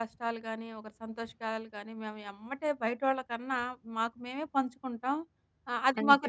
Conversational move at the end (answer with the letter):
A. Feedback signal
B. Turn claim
A